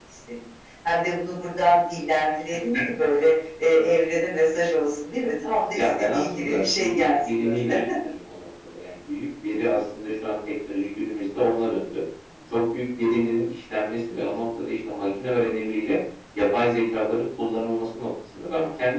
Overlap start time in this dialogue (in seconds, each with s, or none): 5.8 s